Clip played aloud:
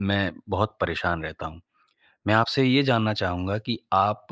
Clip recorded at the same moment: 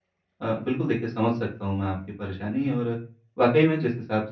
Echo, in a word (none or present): none